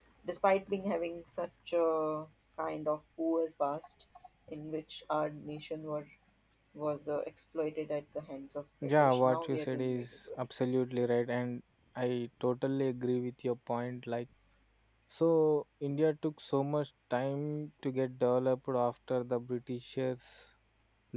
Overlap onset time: 8.8 s

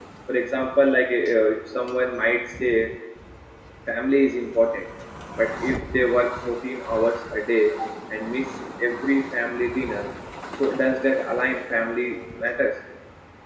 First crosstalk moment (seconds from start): none

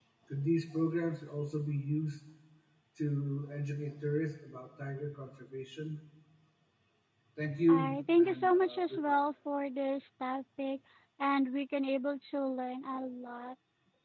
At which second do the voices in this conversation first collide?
7.7 s

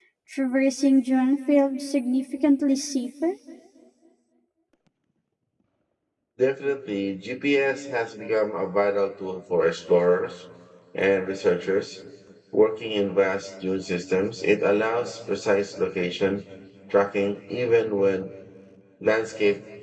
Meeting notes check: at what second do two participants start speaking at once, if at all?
none

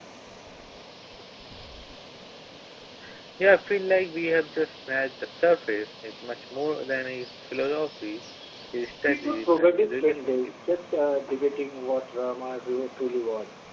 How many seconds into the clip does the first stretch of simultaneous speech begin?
9.1 s

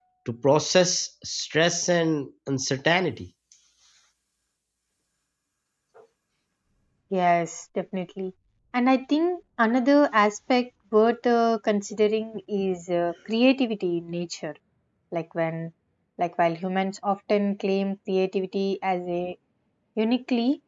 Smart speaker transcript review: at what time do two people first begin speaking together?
none

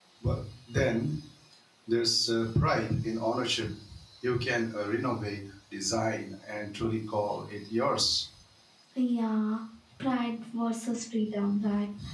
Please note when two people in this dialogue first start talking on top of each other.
none

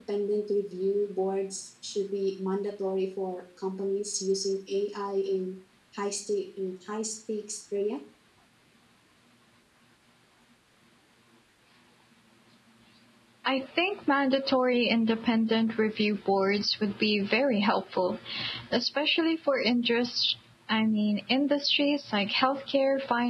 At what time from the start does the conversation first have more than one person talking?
none

